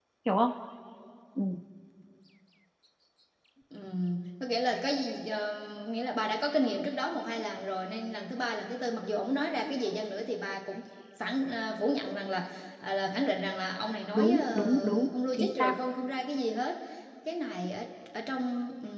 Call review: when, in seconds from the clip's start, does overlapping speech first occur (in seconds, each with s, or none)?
14.1 s